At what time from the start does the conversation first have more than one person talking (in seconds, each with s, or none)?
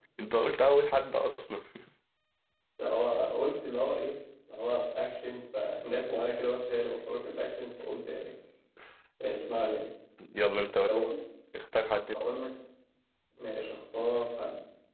none